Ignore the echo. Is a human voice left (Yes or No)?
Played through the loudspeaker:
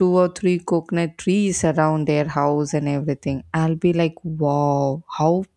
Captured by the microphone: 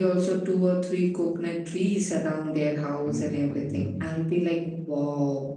Yes